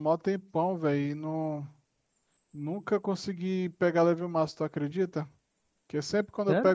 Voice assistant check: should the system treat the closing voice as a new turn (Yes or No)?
No